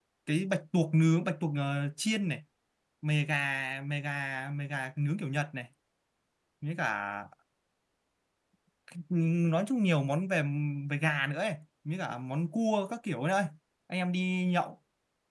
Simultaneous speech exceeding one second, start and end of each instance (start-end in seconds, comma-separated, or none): none